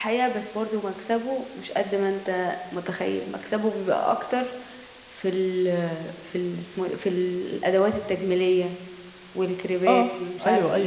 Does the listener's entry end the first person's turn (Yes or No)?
Yes